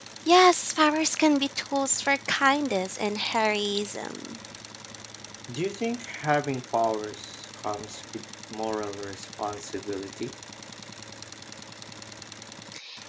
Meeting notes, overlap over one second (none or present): none